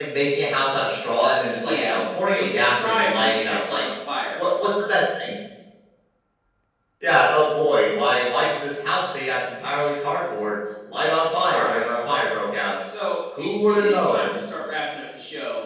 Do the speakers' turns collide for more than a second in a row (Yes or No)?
Yes